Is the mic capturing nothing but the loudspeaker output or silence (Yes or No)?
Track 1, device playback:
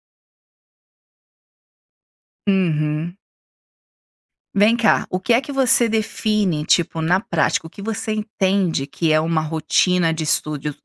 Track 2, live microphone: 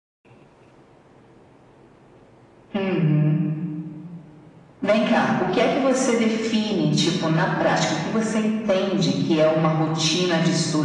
Yes